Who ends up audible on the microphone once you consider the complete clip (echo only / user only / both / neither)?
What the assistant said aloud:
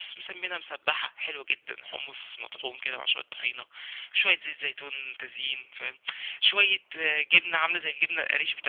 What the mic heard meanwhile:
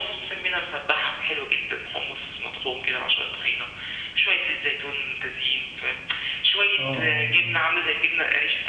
both